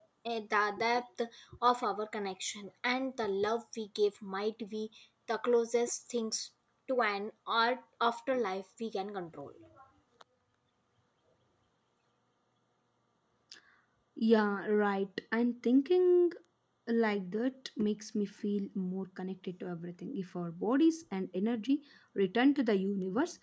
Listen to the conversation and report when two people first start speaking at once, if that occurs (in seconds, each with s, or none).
none